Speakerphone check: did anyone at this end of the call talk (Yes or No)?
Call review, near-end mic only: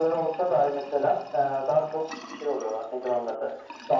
No